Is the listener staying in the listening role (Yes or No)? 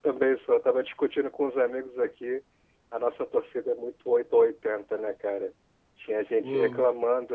Yes